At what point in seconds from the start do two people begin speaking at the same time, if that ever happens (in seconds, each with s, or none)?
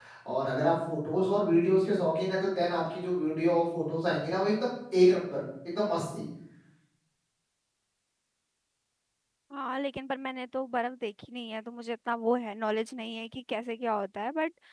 none